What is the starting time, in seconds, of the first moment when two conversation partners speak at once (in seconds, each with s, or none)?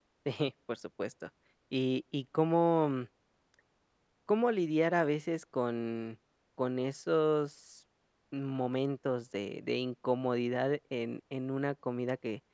none